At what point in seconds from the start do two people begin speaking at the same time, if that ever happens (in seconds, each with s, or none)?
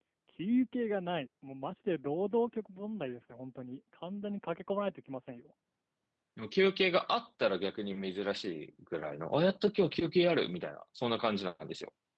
none